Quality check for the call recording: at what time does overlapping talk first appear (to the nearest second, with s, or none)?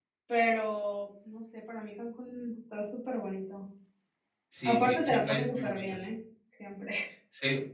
5 s